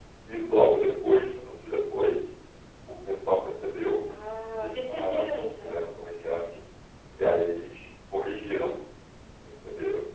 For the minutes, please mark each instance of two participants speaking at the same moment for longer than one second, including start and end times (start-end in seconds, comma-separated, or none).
4.5-5.9